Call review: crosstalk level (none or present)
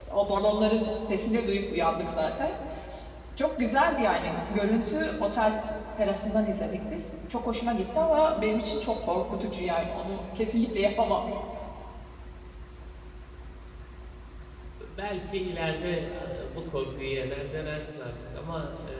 none